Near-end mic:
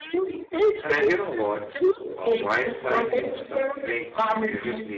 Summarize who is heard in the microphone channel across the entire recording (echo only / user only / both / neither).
both